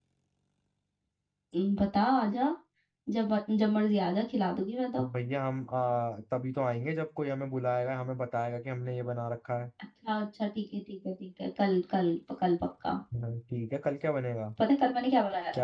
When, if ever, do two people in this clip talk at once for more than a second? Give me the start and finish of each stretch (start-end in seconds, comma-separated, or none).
none